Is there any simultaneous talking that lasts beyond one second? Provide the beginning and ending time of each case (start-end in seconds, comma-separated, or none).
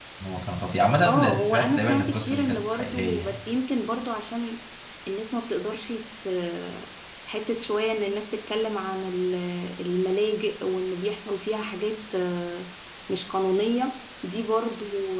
1.0-3.5